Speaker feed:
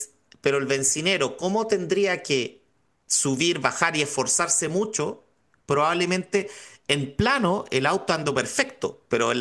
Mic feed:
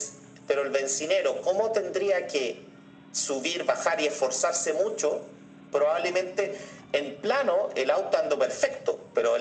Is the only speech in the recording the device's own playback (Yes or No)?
Yes